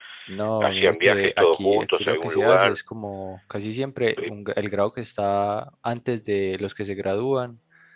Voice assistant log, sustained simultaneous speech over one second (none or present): present